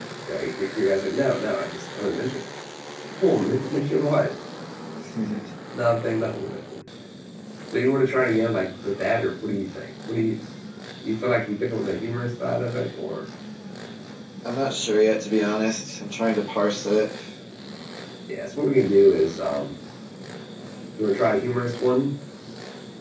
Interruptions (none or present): none